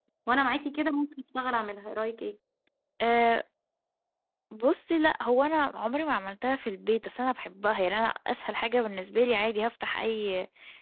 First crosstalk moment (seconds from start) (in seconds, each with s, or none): none